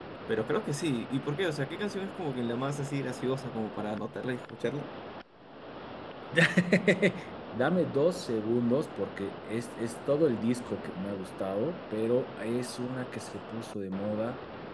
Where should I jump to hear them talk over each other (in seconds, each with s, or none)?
none